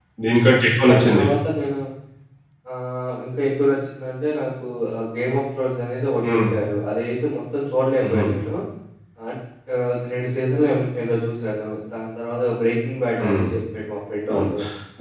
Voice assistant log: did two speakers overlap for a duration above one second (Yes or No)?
No